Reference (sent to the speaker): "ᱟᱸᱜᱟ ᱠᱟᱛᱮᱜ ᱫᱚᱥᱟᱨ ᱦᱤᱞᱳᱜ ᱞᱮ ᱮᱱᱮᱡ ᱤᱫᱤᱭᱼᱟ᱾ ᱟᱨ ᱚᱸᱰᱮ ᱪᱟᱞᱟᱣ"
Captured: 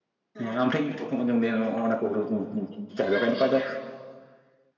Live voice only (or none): ᱦᱮᱸ ᱟᱢ ᱴᱷᱮᱱ ᱤᱧ ᱯᱨᱚᱛᱷᱚᱢ ᱟᱸᱡᱚᱢ ᱫᱟ ᱚᱱᱟ ᱠᱚ ᱦᱩᱲᱩ ᱪᱟᱥ ᱫᱚ ᱱᱚᱝᱠᱟ ᱫᱚ